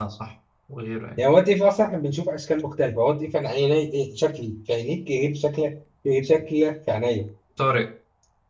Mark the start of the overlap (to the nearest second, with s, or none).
none